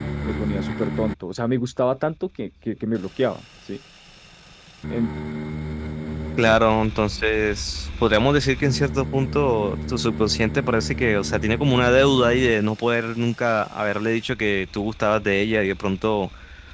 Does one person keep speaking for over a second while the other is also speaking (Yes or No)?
No